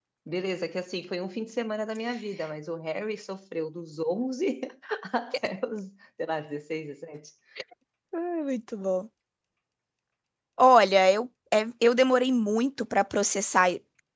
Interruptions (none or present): none